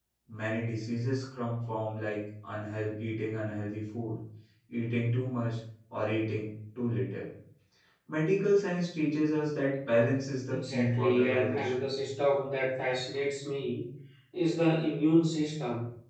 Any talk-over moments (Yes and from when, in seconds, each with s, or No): Yes, from 10.5 s